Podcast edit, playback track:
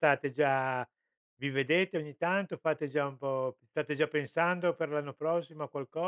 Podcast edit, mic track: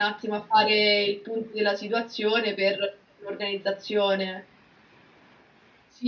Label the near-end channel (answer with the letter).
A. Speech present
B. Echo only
A